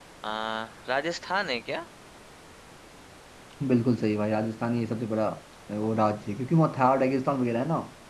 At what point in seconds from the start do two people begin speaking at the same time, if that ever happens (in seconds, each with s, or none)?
none